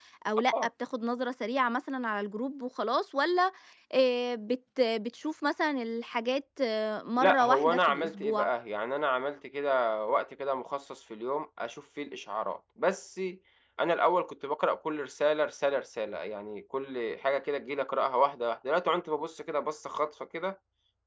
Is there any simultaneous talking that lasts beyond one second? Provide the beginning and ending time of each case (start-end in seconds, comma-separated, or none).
7.2-8.5